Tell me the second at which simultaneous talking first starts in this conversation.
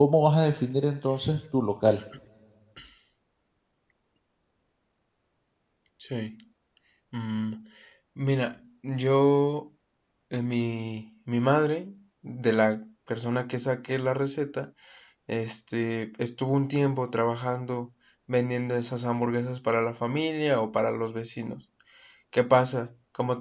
none

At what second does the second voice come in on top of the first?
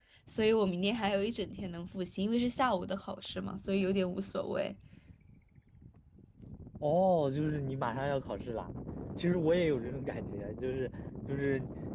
none

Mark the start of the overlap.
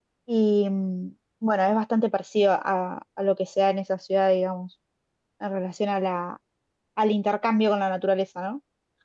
none

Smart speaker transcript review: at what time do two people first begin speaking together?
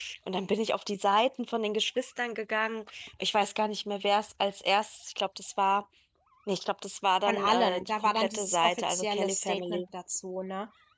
7.3 s

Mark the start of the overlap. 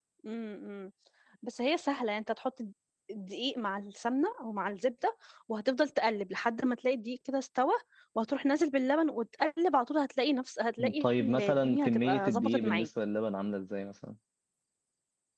10.8 s

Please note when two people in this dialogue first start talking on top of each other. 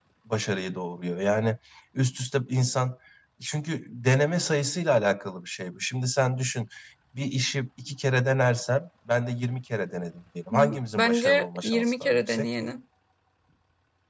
10.5 s

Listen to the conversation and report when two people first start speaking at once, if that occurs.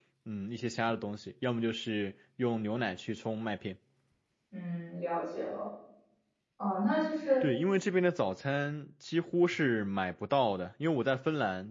none

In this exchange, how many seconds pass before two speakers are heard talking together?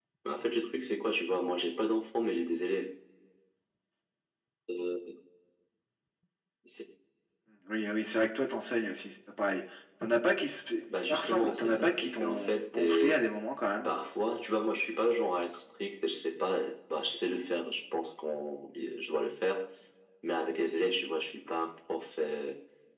11.1 s

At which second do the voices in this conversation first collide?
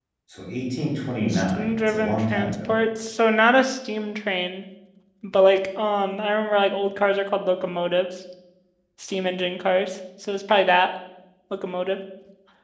1.3 s

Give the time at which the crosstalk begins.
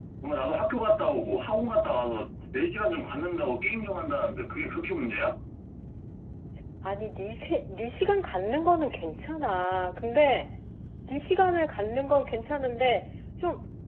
none

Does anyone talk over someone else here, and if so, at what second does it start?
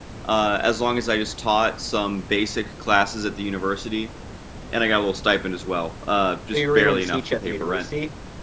6.5 s

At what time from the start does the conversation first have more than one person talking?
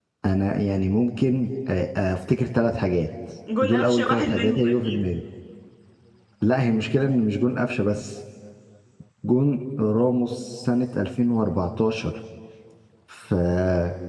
3.6 s

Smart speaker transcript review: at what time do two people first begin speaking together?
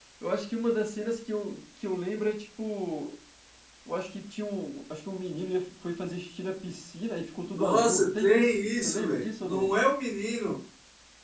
7.5 s

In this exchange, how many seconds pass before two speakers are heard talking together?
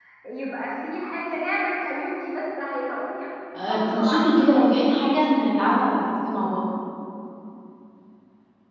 3.5 s

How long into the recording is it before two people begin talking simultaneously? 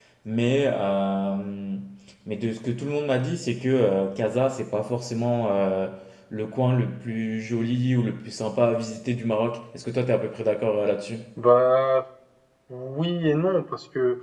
none

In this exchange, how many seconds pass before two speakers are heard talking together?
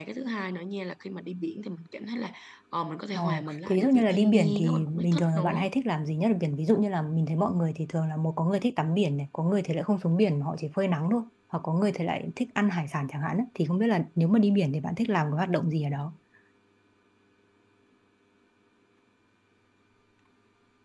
3.1 s

